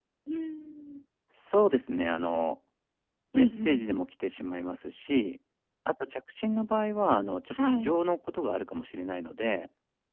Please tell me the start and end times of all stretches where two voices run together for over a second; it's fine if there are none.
none

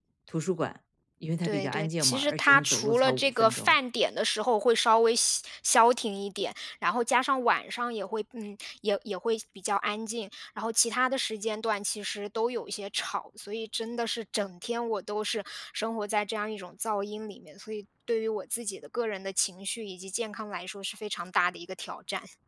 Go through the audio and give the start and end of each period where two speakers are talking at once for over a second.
1.4-3.8

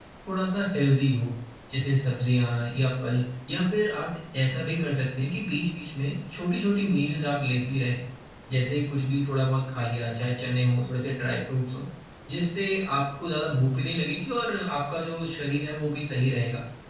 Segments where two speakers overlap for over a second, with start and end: none

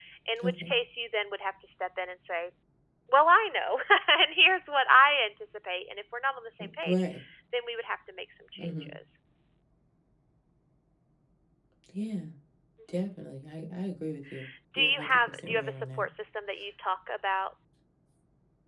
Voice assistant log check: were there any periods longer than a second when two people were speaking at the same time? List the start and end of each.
14.8-16.1

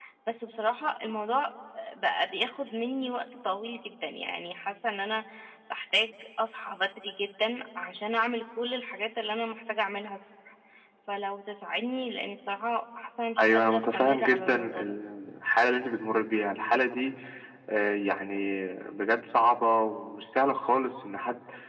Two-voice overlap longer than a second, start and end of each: 13.4-14.9

